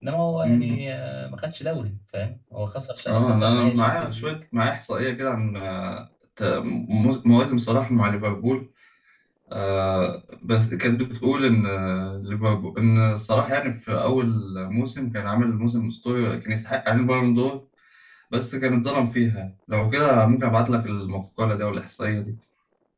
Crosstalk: present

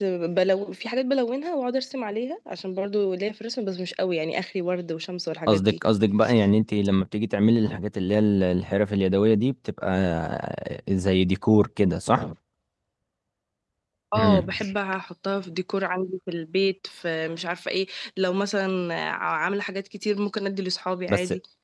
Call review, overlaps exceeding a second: none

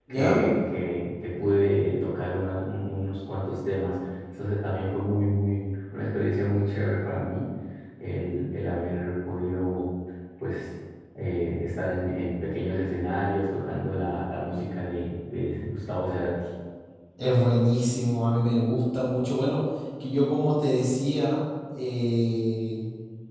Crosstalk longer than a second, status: none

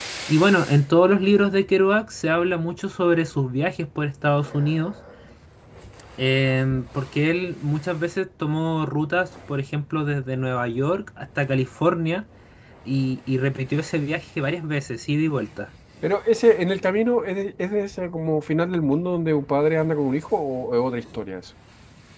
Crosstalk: none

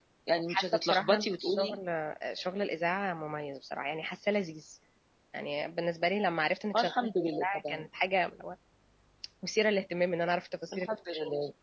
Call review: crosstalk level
present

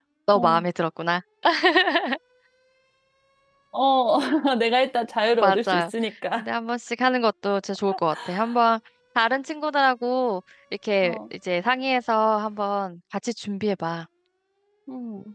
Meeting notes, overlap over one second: none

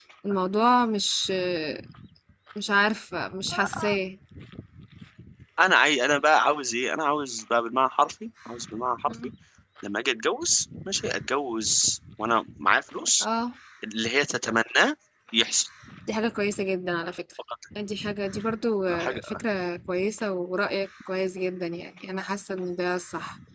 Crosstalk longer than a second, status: none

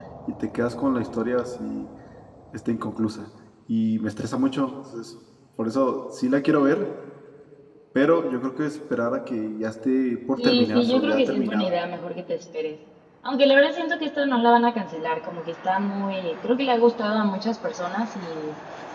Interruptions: present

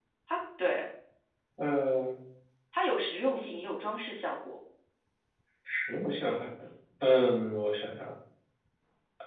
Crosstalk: none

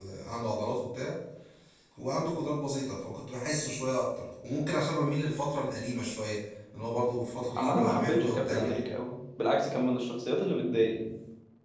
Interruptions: present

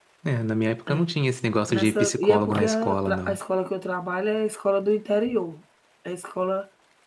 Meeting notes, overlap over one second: present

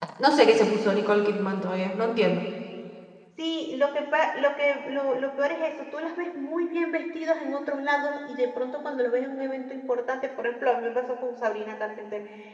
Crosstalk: none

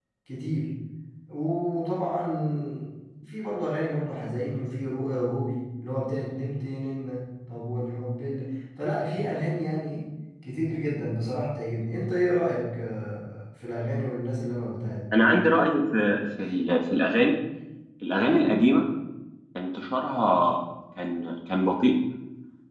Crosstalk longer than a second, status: none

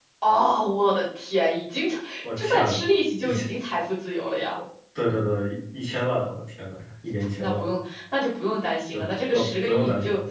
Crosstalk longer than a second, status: present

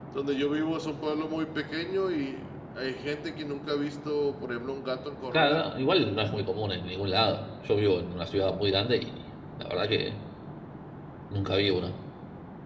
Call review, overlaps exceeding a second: none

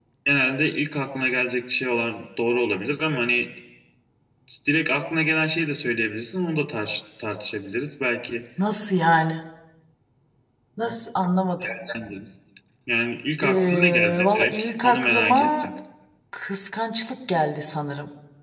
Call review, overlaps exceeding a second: present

